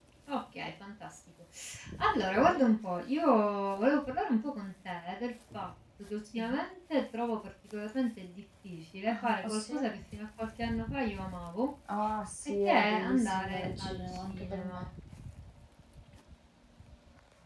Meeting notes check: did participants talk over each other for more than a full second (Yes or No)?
Yes